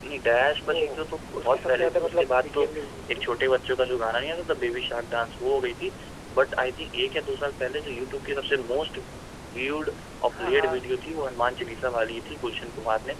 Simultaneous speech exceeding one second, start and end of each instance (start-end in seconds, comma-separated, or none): 1.4-2.7